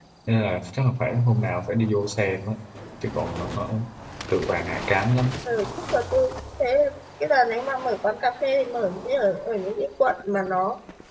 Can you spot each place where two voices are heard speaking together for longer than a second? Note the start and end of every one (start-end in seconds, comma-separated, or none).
none